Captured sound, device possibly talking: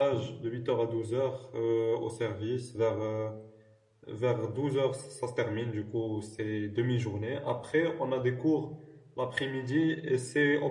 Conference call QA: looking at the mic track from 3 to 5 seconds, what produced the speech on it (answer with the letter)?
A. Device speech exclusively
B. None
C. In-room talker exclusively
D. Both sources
C